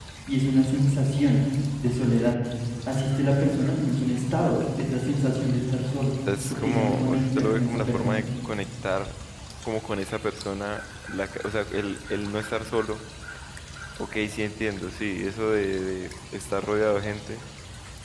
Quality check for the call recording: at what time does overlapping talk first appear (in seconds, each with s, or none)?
6.5 s